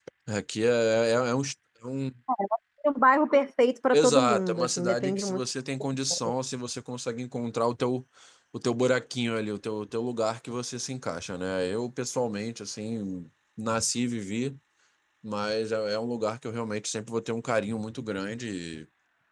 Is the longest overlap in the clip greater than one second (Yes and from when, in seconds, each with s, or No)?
Yes, from 3.9 s